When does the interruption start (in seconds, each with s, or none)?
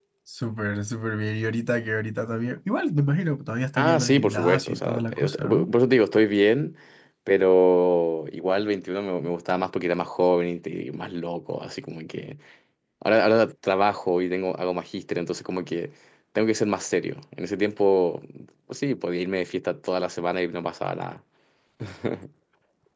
3.8 s